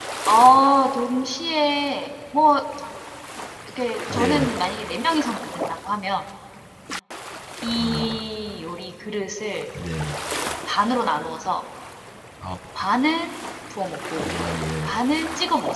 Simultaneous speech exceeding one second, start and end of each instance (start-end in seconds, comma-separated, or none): none